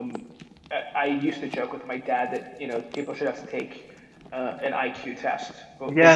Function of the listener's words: taking over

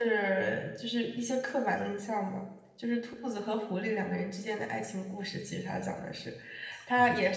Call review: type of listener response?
listening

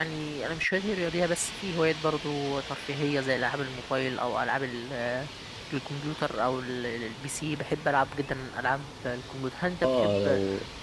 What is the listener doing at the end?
taking over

